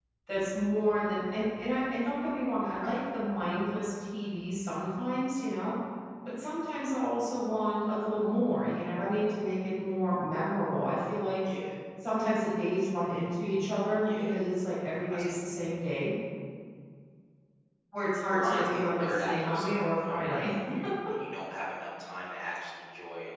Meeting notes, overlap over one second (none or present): present